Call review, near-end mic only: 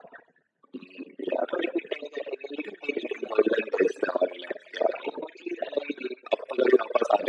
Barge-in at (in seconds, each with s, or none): none